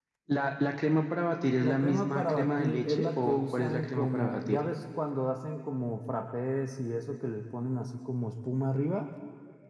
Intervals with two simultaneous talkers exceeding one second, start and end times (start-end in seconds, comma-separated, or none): 1.6-4.6